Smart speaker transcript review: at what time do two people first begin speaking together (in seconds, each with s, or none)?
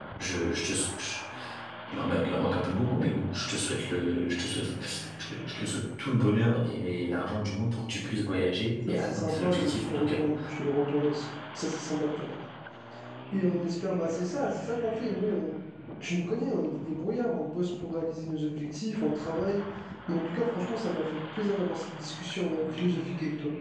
8.9 s